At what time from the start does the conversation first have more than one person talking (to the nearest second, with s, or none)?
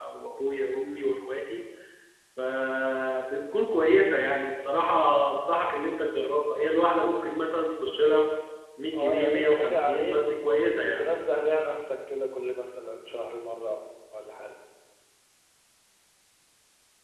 9 s